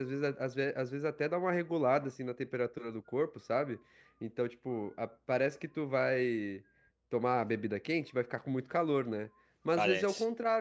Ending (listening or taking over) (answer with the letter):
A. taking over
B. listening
B